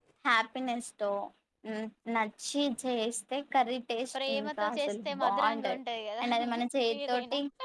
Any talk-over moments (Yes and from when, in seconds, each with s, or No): Yes, from 4.2 s